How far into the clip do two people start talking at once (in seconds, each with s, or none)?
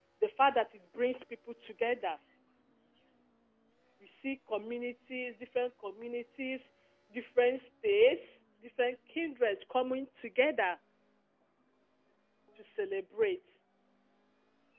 none